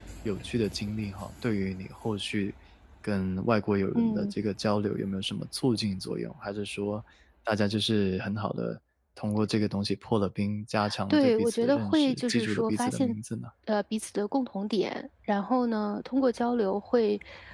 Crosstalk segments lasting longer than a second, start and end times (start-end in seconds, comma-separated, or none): 11.1-13.1